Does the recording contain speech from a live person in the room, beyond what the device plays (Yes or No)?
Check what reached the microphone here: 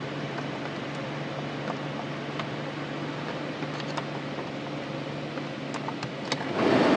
No